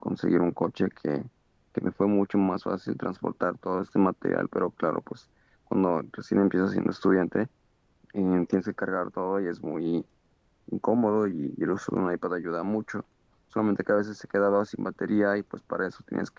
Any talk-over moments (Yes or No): No